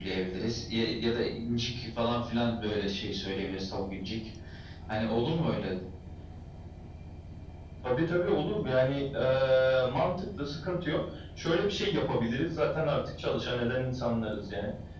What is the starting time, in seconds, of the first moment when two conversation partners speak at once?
none

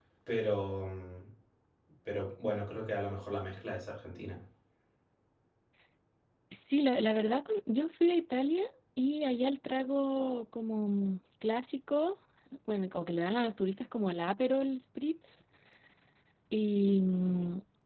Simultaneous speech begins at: none

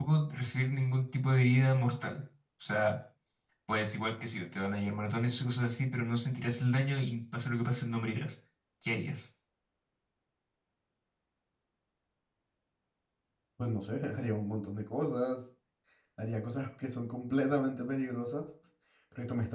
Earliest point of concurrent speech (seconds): none

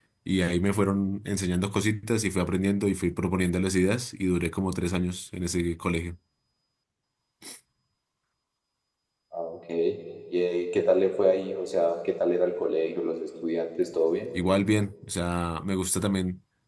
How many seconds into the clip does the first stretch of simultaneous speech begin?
none

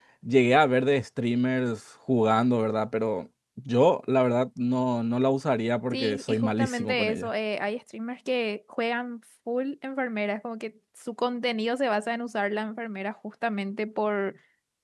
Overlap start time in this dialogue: 6 s

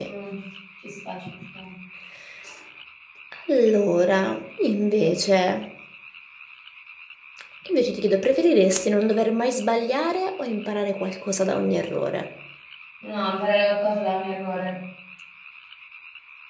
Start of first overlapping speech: none

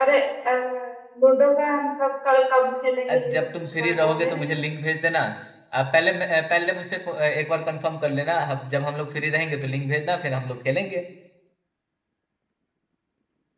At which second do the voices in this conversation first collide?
3 s

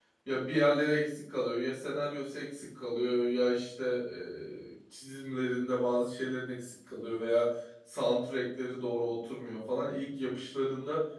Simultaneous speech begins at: none

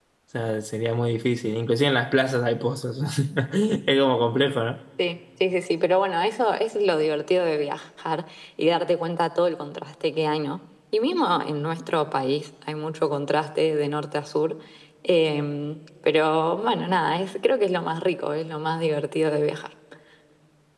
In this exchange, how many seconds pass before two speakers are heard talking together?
none

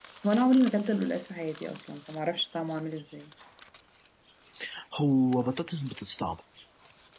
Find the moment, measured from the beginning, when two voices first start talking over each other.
none

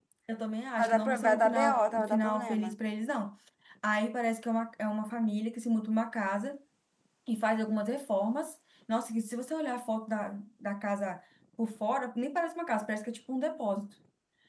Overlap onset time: 1 s

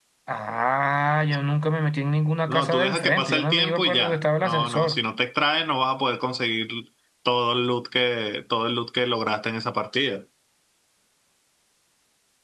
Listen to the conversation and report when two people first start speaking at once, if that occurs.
2 s

